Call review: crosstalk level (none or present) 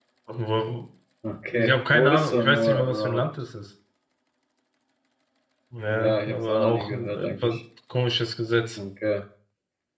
present